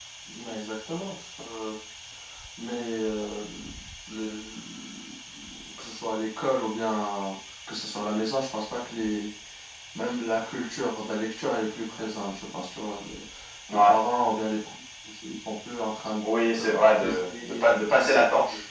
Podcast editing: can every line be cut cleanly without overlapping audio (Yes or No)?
No